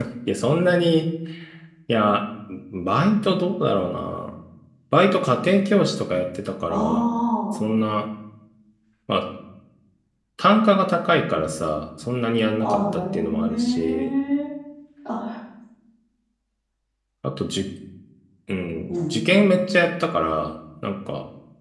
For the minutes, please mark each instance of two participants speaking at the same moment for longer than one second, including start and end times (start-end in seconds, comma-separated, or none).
12.6-14.1